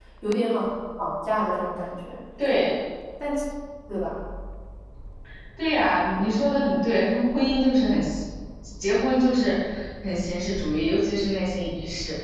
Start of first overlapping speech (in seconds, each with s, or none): none